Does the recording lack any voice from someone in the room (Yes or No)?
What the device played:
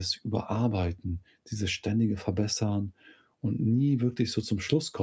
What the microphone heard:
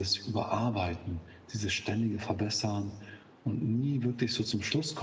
Yes